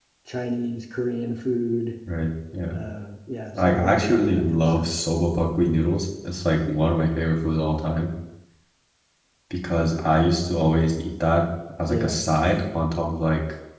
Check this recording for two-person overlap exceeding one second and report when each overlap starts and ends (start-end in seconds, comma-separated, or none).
3.6-4.9